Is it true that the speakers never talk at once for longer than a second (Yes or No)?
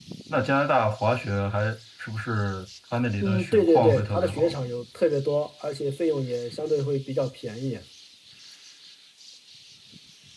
No